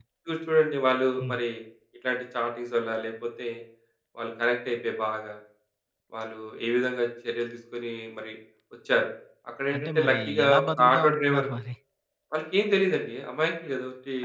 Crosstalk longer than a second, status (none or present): present